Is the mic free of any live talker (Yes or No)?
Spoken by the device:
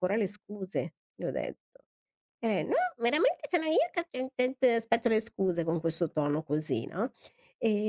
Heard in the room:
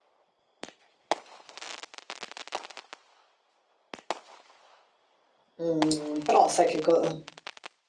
No